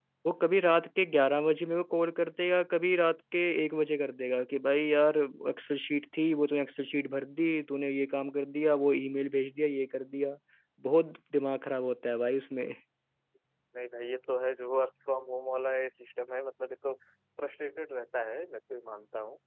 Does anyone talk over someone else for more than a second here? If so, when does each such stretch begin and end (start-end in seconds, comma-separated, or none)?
none